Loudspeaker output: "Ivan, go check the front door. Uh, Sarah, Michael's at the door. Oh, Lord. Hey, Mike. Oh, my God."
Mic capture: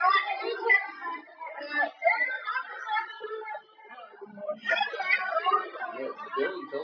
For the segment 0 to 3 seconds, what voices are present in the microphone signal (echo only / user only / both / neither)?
echo only